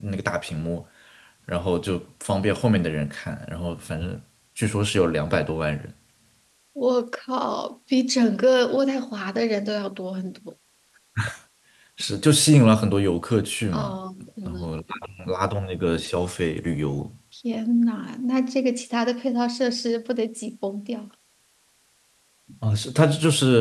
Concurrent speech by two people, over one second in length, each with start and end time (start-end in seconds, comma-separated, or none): none